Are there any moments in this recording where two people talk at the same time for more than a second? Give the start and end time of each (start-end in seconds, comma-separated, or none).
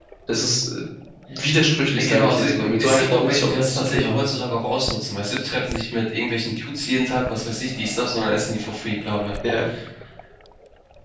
1.9-4.3